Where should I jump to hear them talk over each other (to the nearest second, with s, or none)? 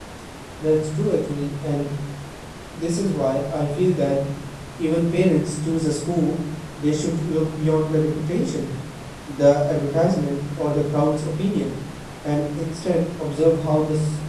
none